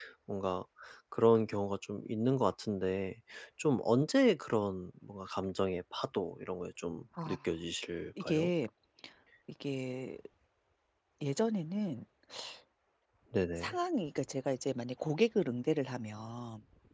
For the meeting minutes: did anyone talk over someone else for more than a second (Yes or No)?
No